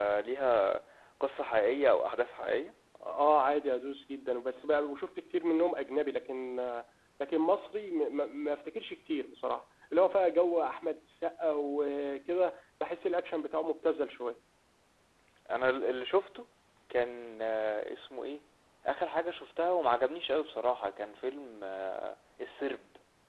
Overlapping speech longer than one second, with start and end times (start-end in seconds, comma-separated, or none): none